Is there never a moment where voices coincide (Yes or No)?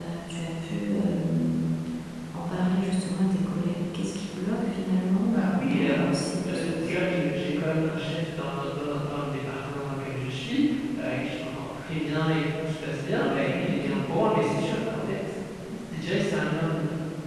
No